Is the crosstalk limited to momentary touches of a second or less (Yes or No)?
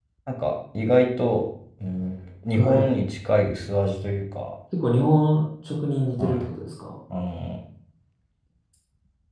Yes